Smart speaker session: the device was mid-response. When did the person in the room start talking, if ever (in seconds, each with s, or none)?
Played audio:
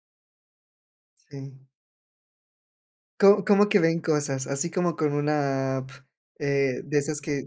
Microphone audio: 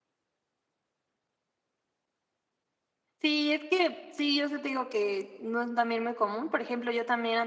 3.2 s